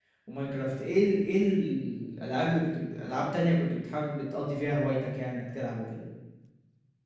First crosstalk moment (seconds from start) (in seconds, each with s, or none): none